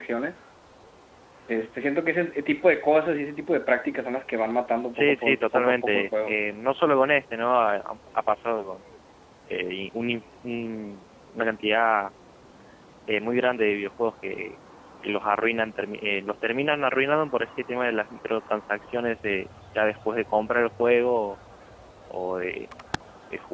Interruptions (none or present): present